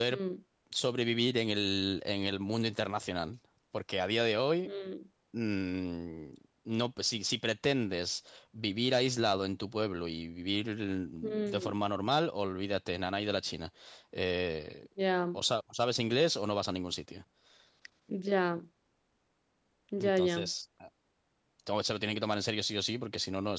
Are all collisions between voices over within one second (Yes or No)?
Yes